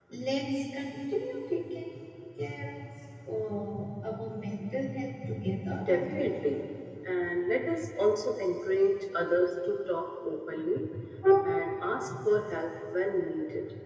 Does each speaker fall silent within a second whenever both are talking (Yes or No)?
Yes